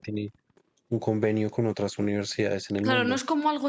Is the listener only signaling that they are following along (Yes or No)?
No